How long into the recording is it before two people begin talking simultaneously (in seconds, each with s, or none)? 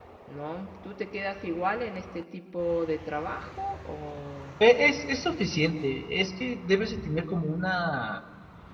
none